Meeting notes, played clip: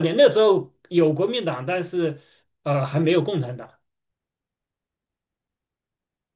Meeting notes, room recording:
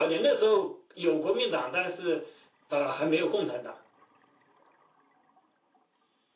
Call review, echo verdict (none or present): present